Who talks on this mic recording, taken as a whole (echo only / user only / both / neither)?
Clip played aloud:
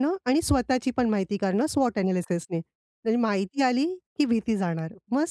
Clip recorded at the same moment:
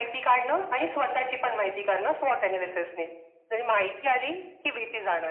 echo only